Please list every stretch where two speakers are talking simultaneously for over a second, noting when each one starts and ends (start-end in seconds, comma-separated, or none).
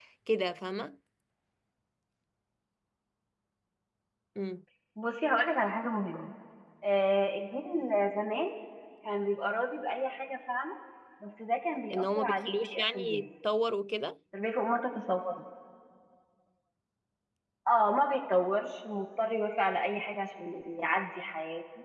11.9-13.2